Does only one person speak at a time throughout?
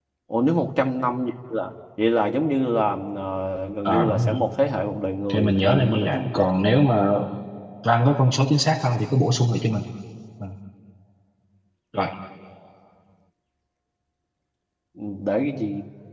No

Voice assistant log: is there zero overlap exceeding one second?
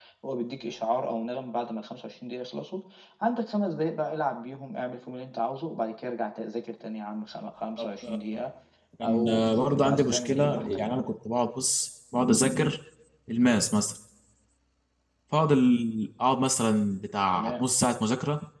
No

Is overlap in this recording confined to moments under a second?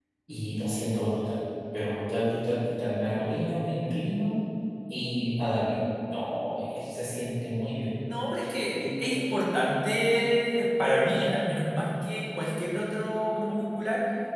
Yes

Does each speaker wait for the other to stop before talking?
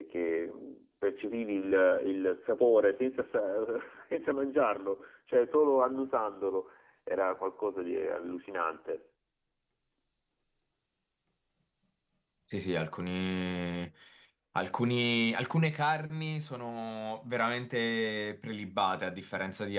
Yes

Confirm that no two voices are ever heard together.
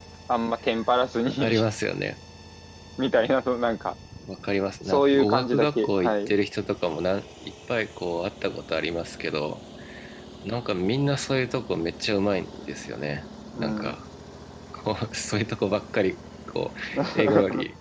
No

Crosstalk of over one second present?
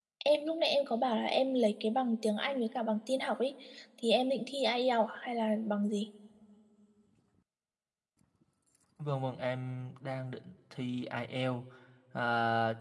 No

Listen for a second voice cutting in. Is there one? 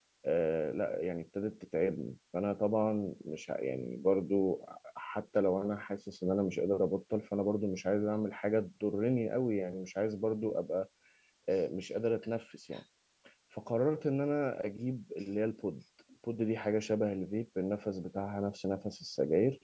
No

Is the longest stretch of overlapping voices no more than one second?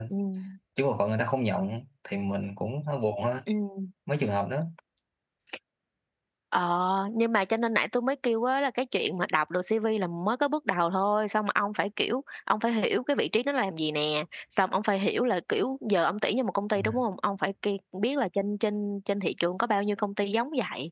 Yes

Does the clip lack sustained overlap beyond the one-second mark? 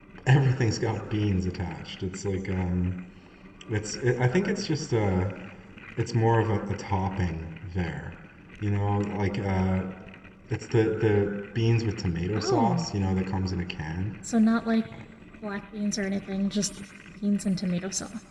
Yes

